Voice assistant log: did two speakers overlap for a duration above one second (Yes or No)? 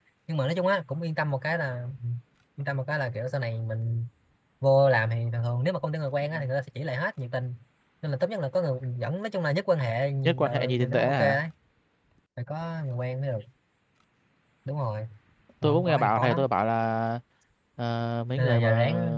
Yes